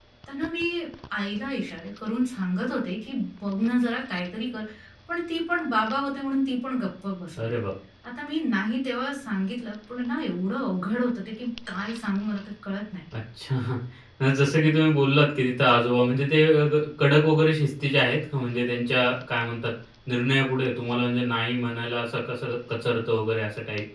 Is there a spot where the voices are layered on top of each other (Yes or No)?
No